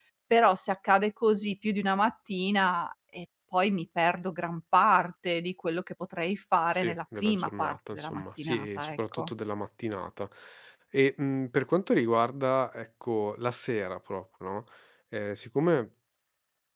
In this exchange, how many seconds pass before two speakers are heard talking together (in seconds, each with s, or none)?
6.7 s